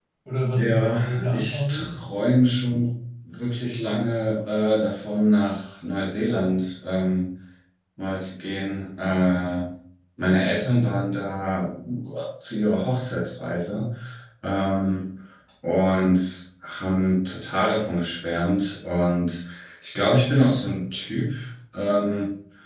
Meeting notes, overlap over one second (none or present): present